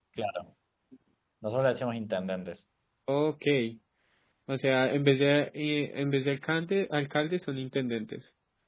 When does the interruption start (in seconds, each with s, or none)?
none